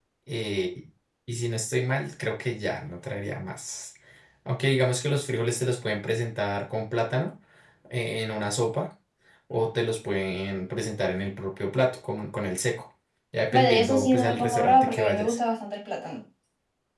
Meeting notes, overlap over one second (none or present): present